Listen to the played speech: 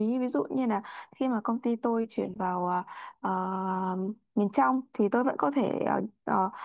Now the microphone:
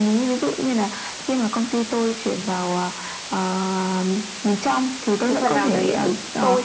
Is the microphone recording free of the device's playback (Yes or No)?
No